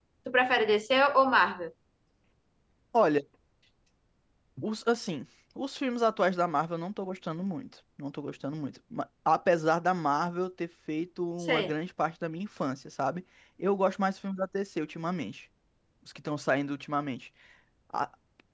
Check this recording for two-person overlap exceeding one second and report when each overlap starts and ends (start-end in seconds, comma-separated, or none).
none